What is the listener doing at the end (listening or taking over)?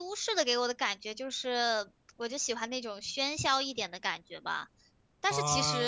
taking over